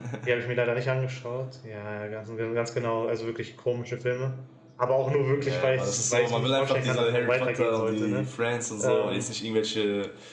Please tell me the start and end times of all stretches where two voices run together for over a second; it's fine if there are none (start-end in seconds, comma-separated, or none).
5.4-8.3